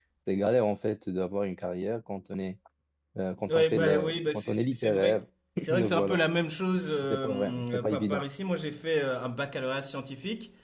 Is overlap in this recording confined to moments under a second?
No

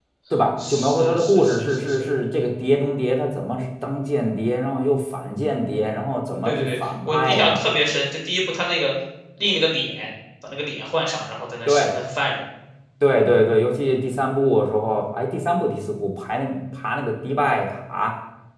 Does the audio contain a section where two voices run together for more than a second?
Yes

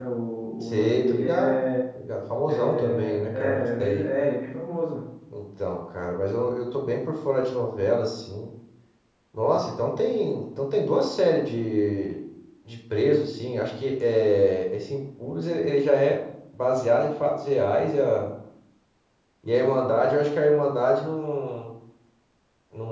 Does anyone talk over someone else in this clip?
Yes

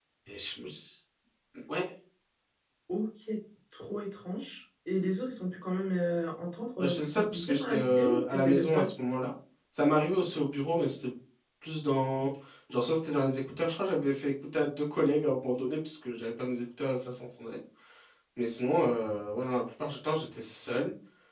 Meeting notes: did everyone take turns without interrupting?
No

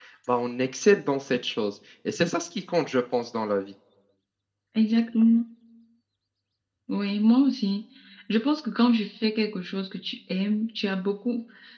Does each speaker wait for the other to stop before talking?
Yes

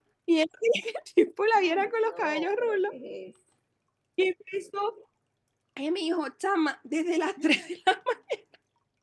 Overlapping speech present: Yes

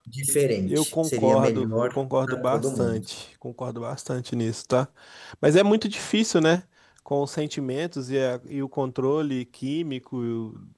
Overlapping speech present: Yes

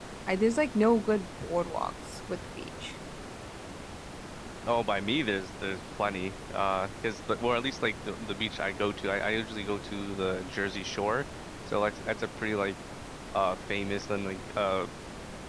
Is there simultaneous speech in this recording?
No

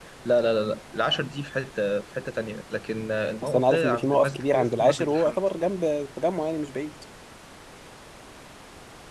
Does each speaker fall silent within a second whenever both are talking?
No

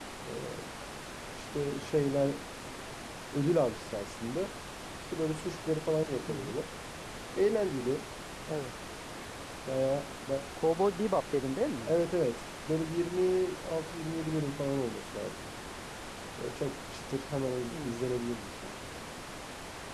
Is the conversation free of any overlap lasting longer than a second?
Yes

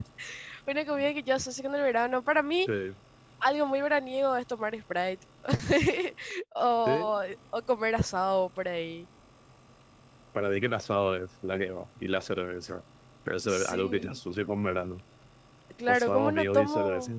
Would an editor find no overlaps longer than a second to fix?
No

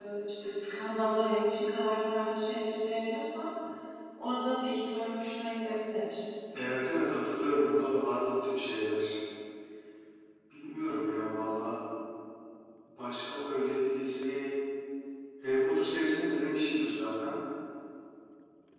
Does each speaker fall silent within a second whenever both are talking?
Yes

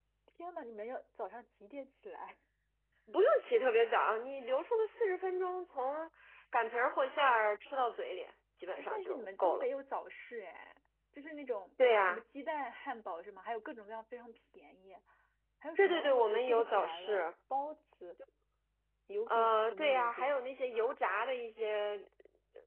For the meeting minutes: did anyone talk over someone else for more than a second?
Yes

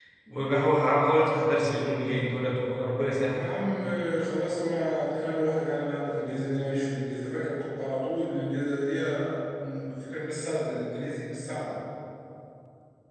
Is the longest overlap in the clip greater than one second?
No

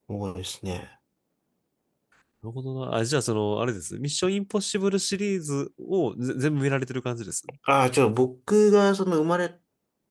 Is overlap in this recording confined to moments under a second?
Yes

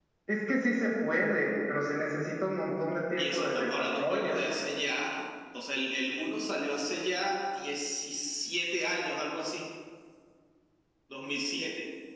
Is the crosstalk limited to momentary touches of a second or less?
No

